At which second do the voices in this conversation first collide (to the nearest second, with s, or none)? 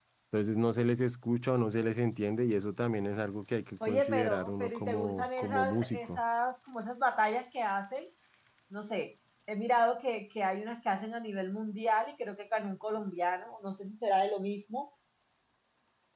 4 s